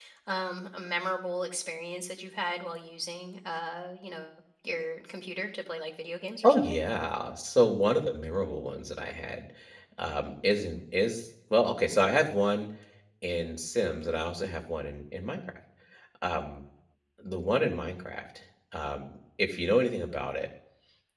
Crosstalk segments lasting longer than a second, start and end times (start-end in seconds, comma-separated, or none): none